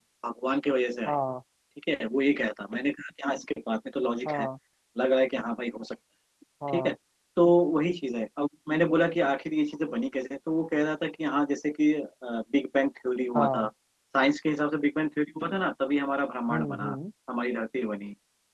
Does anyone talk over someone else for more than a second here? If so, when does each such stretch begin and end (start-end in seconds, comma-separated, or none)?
none